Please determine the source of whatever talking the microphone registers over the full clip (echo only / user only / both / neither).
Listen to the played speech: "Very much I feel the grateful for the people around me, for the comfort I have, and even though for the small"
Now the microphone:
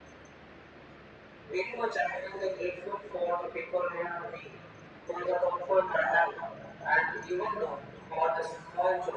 echo only